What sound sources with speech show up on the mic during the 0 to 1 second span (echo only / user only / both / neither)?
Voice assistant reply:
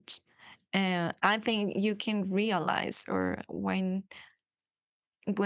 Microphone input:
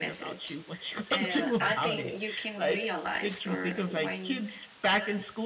both